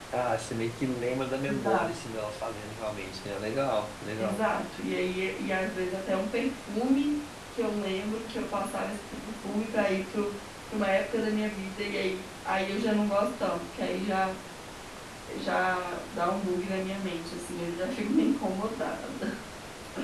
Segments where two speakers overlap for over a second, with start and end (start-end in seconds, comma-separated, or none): none